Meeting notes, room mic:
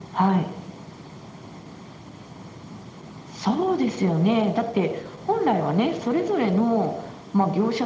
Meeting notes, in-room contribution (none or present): none